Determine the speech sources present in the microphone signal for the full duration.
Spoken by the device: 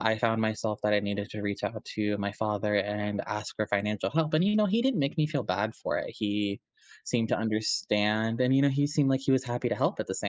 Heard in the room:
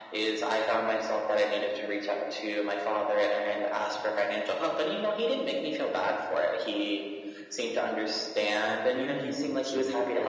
both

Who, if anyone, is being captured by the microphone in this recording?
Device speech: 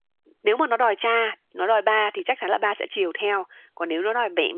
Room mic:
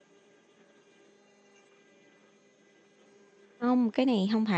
user only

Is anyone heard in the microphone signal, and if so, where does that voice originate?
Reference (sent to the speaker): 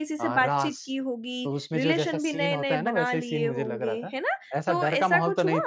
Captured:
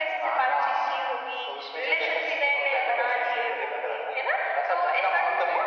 echo only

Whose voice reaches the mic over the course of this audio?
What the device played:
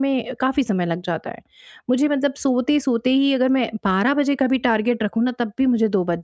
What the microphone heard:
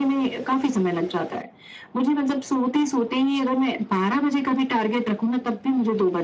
echo only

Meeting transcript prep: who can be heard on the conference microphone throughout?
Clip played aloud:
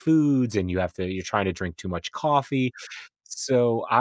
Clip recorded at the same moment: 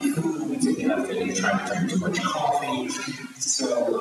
echo only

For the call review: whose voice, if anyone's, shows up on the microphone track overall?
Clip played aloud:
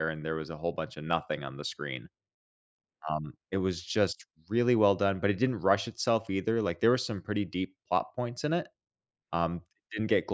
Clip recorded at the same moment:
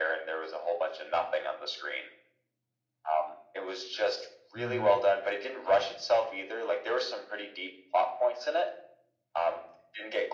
both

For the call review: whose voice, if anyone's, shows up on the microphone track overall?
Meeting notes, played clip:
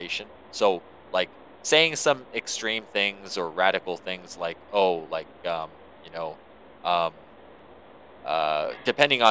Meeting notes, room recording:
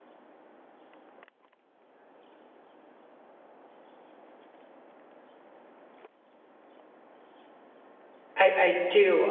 user only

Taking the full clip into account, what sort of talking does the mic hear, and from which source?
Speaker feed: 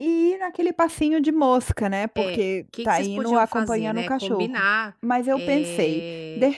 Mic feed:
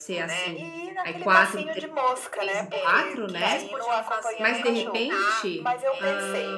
both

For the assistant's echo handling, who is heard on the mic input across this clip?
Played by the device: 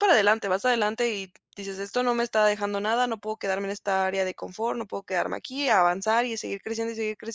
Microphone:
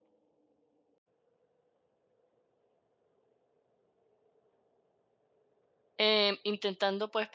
user only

